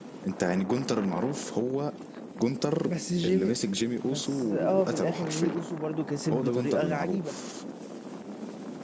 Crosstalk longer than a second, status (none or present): present